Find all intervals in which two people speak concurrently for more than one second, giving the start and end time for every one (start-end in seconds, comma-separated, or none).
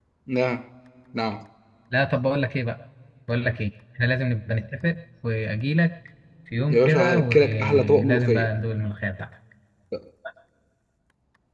6.7-8.5